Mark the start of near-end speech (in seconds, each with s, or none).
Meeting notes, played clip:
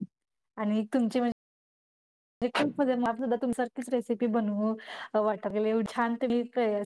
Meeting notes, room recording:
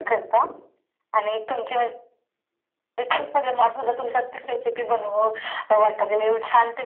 none